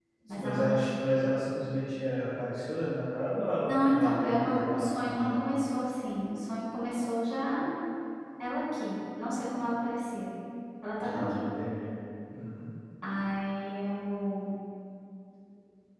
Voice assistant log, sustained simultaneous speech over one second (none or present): present